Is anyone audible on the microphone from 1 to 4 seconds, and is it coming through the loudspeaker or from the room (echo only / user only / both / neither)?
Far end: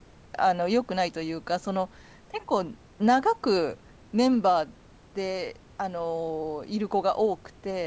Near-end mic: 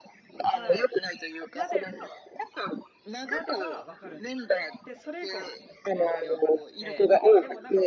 both